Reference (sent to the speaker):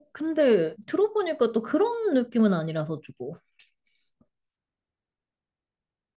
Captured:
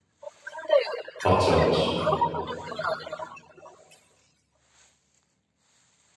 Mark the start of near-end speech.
1 s

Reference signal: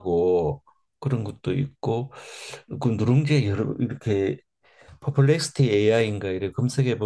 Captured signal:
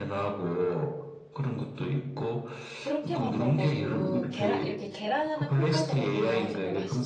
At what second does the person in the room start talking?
3 s

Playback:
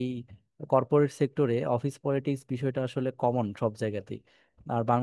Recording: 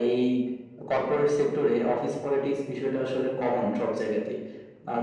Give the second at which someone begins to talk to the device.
none

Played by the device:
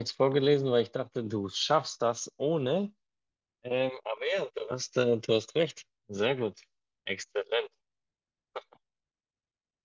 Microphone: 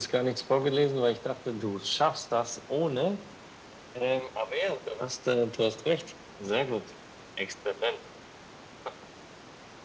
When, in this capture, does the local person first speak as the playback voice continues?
none

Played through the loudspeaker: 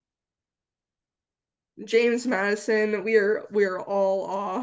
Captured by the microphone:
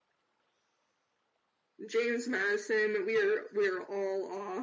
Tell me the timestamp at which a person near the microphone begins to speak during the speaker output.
none

